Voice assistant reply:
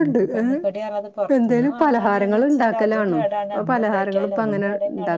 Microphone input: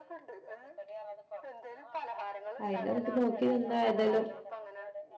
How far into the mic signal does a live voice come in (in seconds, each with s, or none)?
2.6 s